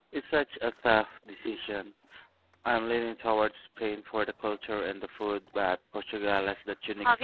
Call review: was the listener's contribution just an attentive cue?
No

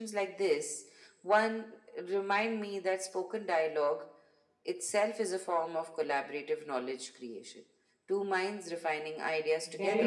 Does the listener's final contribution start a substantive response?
Yes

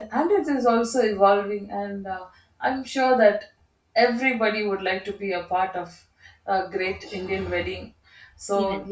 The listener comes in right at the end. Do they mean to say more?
No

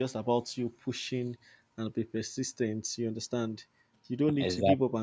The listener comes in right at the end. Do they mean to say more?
No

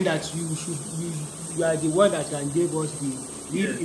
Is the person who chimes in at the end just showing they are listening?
No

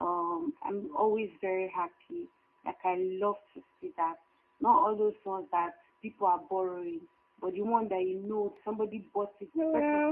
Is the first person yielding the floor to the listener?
No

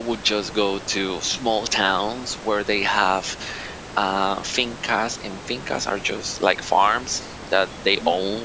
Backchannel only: Yes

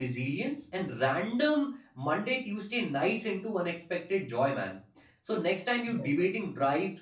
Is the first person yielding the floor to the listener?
No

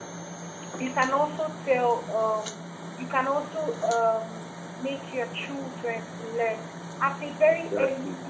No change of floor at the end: Yes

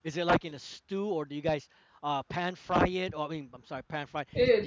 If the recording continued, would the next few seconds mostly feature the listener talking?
Yes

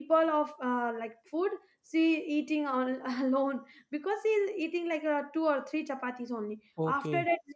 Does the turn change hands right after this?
No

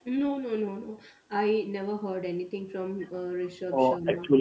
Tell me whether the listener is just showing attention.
No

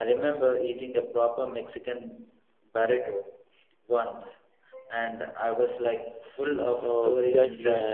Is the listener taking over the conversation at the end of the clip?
Yes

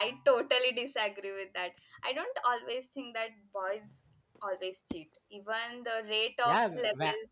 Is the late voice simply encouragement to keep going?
No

